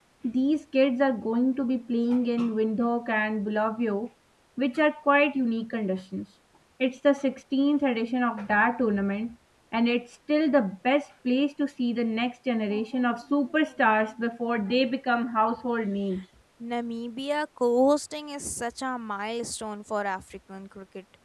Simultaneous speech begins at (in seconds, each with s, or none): none